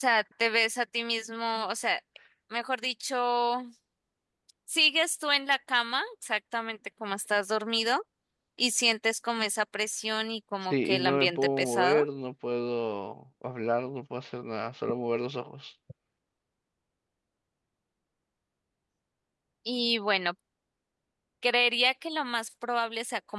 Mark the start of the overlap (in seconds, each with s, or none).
10.6 s